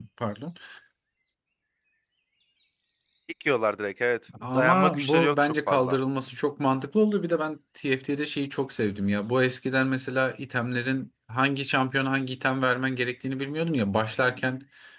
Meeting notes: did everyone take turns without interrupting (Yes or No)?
No